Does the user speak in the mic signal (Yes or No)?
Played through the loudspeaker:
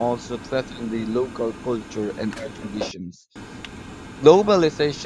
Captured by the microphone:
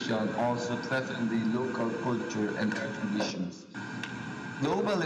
No